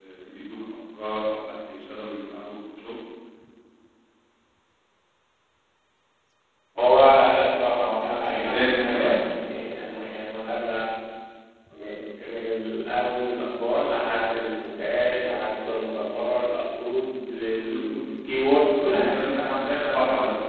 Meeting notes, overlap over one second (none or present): present